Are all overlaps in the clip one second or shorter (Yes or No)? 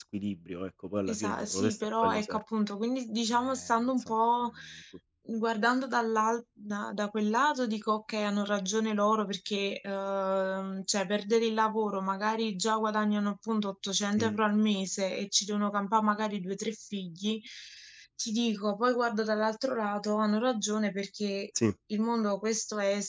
No